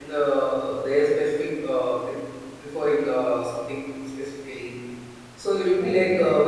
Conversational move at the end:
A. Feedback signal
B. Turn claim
A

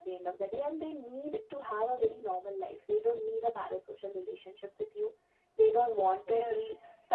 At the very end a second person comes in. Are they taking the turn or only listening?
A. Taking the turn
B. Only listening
B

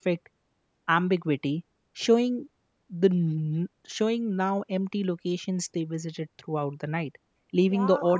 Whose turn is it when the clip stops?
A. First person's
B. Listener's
B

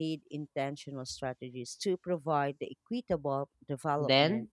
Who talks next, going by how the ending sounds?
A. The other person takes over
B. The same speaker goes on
A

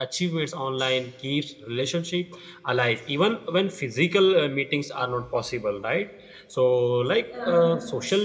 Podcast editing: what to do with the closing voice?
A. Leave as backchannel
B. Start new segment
A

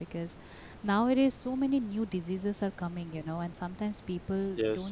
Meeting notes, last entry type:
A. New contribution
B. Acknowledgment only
B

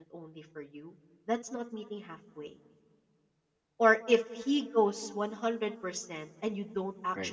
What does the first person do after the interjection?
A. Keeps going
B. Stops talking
A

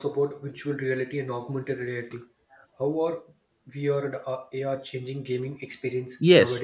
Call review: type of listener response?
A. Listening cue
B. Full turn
B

